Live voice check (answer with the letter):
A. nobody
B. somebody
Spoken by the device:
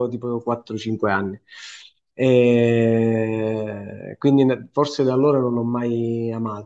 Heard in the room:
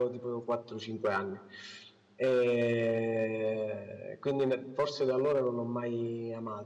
A